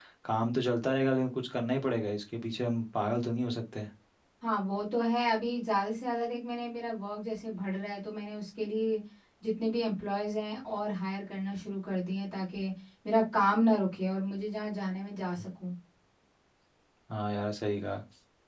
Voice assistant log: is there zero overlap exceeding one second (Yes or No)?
Yes